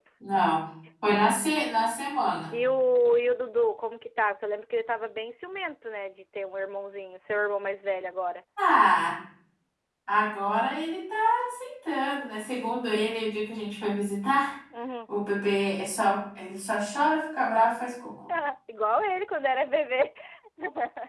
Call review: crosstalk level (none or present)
none